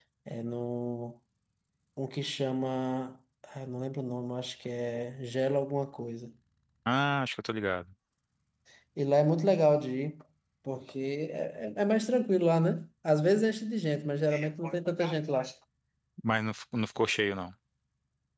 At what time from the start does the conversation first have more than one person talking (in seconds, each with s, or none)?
none